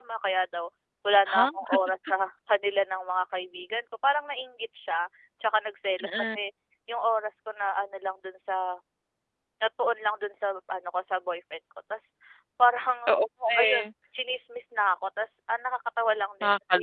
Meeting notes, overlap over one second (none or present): none